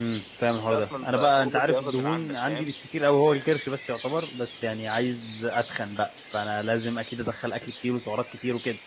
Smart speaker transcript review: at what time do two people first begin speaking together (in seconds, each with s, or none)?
0.6 s